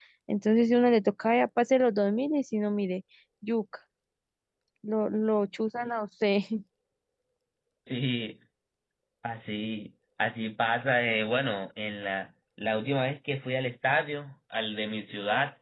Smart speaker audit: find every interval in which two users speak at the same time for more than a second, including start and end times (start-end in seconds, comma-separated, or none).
none